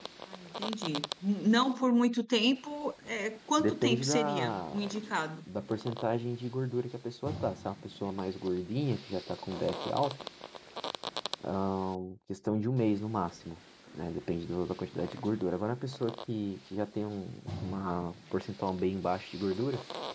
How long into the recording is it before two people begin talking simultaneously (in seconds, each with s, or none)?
3.6 s